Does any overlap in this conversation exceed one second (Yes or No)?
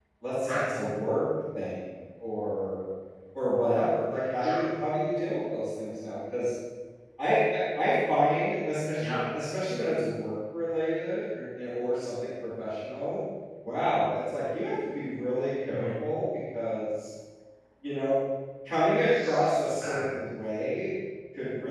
No